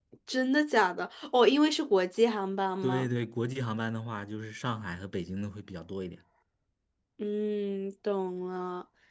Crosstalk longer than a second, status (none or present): none